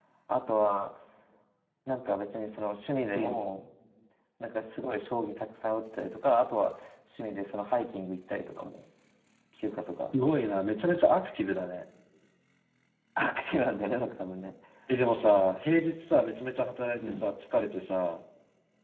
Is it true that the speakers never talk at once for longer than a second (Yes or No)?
Yes